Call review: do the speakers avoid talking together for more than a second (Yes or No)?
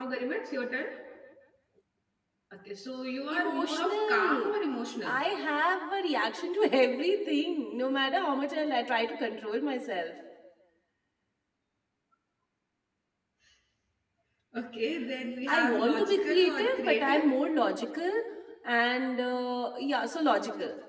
No